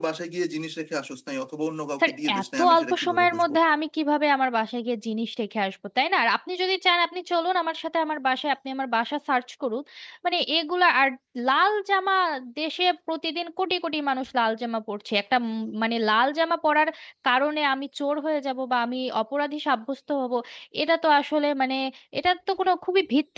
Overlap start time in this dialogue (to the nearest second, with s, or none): 2 s